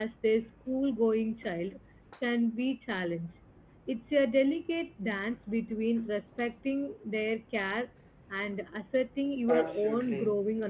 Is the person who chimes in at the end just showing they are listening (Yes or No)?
No